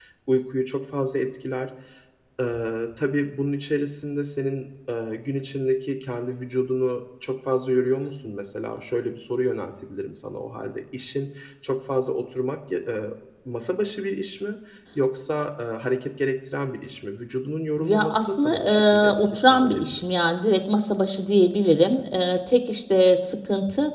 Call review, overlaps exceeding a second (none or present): present